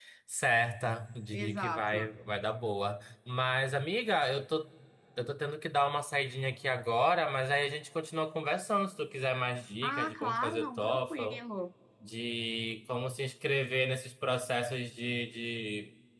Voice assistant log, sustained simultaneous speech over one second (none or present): present